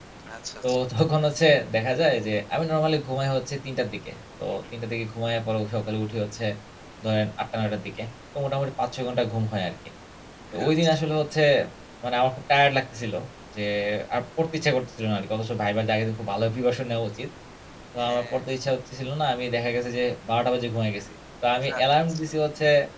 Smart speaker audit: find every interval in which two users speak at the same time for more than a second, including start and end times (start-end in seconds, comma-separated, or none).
none